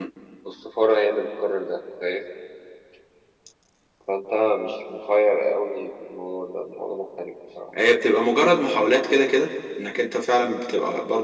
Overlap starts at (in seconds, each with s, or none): none